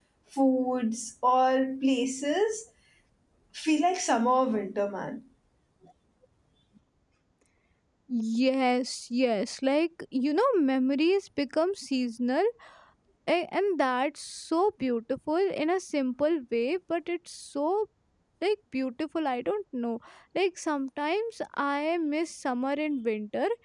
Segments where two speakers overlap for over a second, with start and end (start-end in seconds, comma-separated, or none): none